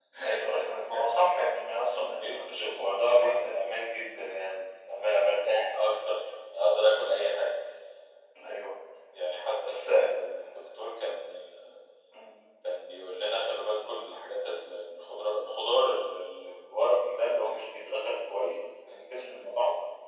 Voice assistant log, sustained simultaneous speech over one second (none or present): present